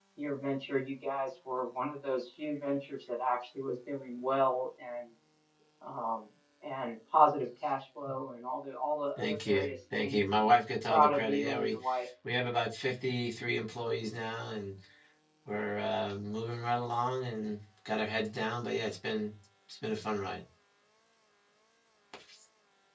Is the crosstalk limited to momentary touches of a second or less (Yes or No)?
No